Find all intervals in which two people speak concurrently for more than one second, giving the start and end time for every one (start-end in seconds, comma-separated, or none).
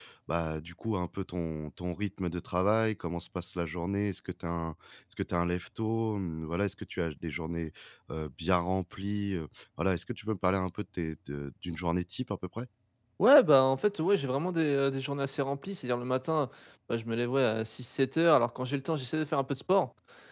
none